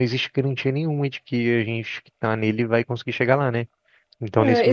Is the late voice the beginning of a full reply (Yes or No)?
Yes